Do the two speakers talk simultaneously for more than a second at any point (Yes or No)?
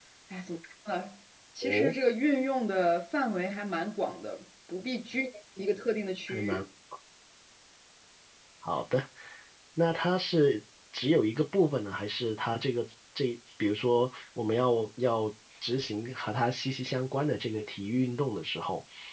No